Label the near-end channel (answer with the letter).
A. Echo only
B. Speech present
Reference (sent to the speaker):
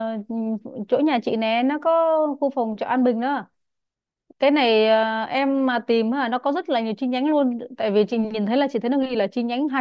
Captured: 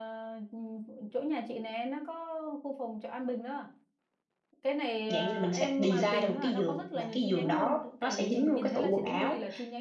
B